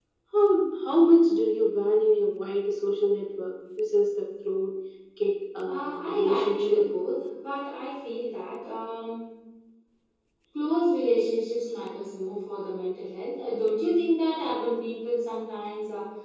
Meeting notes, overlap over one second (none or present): present